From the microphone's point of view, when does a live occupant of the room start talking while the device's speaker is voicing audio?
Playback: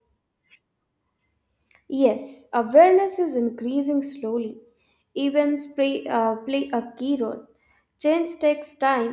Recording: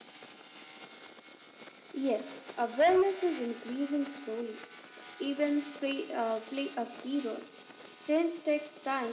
none

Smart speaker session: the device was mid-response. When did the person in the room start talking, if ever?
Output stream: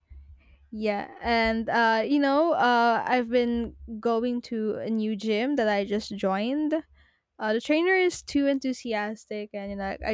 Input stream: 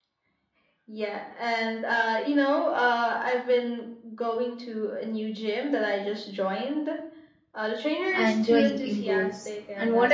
8.1 s

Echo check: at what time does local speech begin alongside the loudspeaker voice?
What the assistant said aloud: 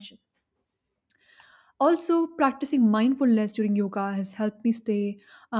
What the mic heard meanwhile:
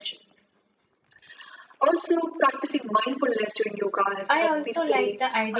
4.3 s

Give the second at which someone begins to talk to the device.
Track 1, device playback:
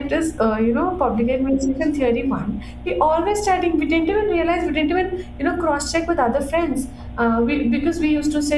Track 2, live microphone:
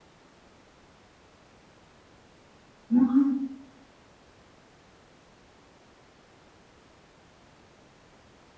2.9 s

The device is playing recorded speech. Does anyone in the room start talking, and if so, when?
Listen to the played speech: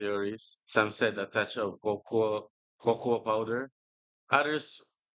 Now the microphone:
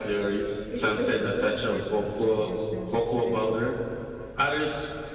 0.7 s

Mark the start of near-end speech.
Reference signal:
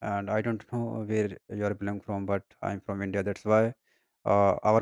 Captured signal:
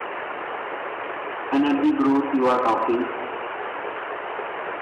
1.6 s

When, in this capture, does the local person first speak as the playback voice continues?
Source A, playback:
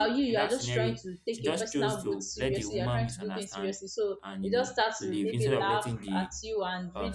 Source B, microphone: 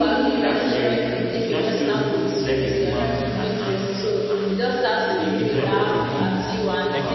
5.8 s

